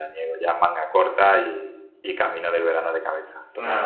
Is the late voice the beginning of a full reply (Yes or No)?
Yes